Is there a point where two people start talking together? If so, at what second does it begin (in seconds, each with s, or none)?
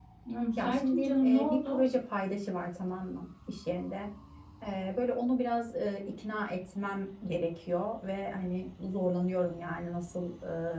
0.6 s